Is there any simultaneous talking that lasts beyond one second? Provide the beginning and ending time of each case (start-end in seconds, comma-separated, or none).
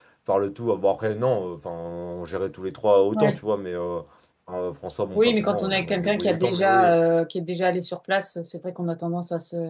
5.1-6.9